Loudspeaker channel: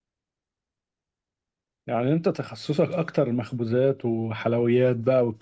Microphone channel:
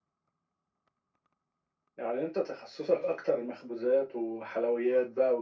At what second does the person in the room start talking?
none

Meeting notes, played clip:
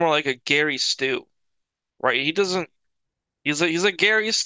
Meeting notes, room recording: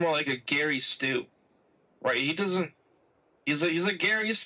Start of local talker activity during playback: none

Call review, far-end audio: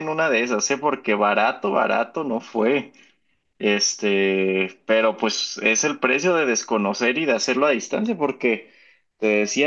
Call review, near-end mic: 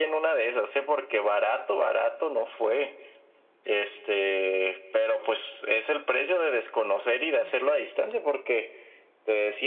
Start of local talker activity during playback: none

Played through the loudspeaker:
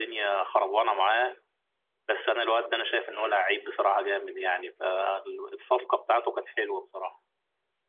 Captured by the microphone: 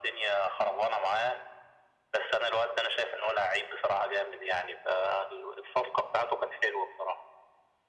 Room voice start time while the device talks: none

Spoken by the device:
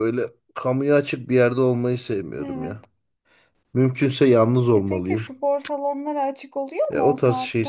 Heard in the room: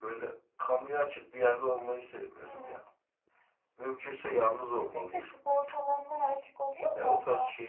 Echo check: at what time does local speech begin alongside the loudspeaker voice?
none

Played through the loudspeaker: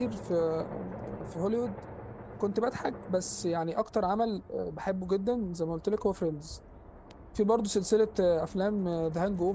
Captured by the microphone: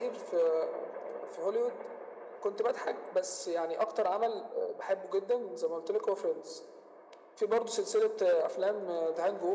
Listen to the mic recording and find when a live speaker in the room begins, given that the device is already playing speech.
none

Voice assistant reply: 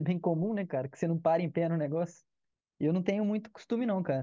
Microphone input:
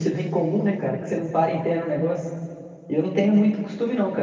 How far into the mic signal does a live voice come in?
none

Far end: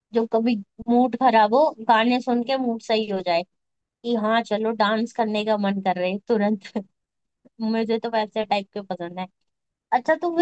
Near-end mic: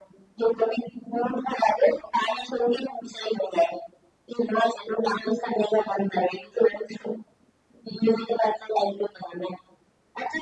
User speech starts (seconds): none

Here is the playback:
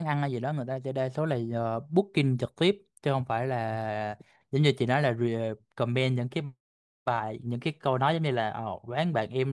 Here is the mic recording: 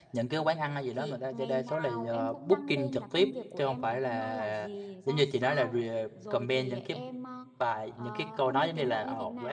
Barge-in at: 0.9 s

